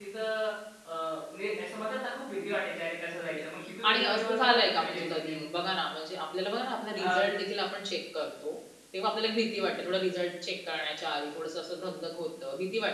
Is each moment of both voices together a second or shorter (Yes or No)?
No